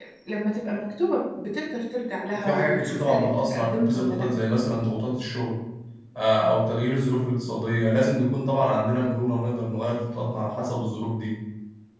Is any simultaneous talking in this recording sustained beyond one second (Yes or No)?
Yes